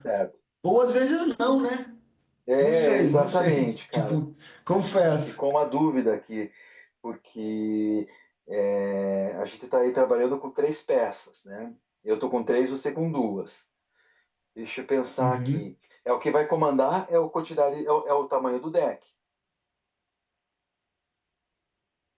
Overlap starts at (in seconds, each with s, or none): 2.6 s